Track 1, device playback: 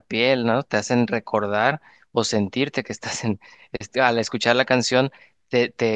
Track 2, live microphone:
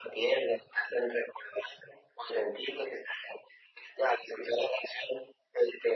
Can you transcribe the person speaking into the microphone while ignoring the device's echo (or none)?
none